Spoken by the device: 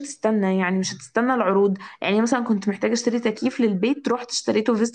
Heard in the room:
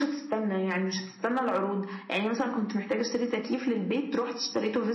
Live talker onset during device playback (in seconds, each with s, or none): none